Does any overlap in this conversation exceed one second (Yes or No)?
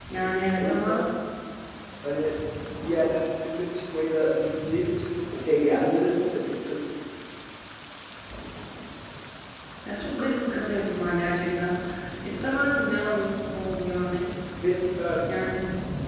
No